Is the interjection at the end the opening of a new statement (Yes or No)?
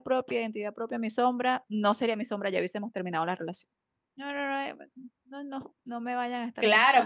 Yes